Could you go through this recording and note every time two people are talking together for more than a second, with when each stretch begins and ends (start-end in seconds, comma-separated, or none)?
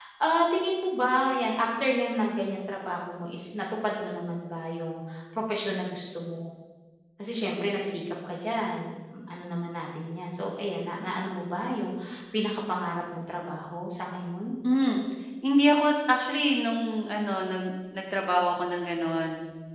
none